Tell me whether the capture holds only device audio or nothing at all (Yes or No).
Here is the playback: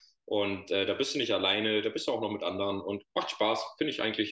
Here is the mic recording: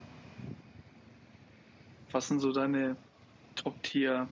No